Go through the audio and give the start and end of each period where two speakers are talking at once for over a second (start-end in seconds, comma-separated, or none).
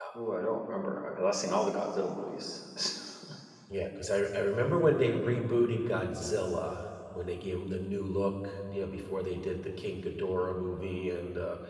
none